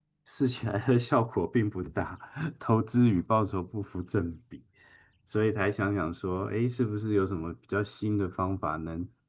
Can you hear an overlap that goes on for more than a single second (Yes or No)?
No